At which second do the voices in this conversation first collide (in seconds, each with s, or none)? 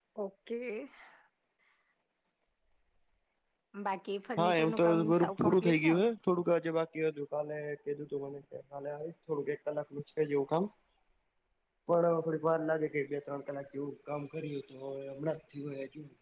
4.4 s